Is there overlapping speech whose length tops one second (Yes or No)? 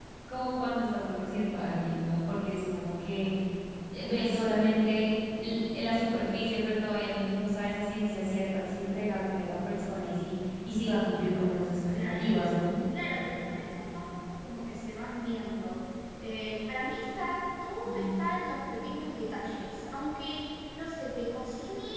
No